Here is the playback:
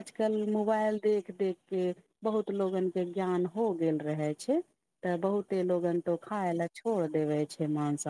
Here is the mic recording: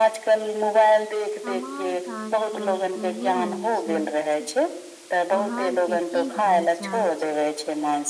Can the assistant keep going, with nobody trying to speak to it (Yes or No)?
No